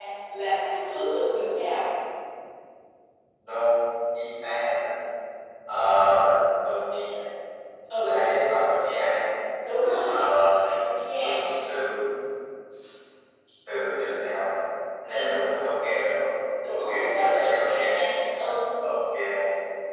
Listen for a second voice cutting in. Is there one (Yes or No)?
Yes